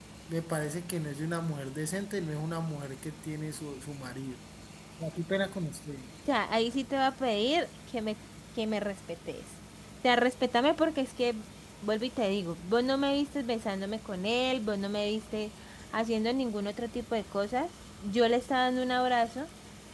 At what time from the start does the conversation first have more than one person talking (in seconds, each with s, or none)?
none